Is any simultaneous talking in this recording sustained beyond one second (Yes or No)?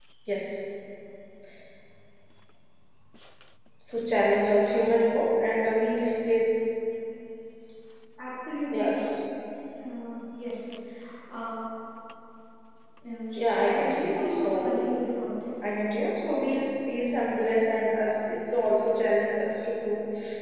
Yes